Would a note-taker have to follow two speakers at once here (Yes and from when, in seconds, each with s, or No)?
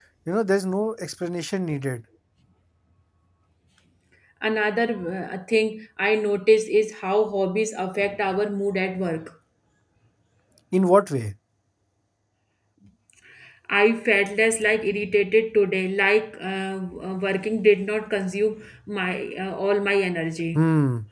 No